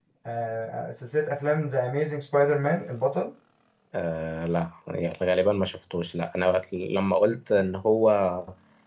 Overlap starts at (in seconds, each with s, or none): none